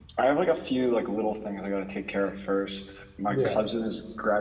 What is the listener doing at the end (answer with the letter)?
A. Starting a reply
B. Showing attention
B